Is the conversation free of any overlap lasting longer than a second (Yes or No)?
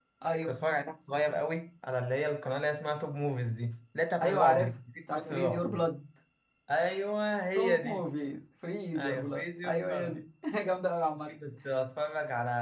No